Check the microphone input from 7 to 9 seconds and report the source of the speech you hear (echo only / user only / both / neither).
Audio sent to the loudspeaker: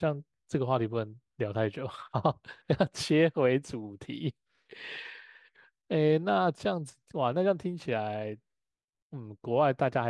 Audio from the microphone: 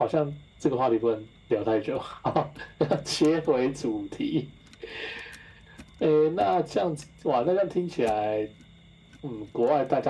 echo only